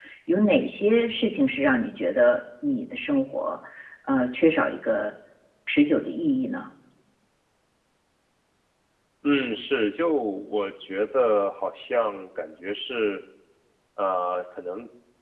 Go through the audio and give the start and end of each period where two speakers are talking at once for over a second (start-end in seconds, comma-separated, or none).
none